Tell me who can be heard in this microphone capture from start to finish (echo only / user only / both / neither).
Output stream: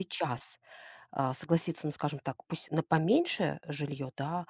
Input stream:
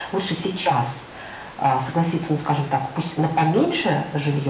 echo only